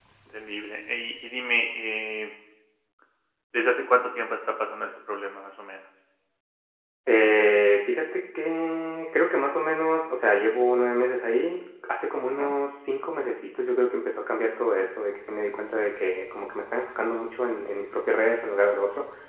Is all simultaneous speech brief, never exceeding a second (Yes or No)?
Yes